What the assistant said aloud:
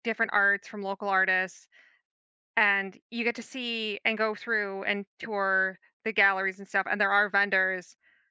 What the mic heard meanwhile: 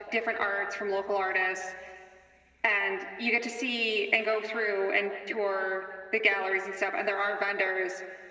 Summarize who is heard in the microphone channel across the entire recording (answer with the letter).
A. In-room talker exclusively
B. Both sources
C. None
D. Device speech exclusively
D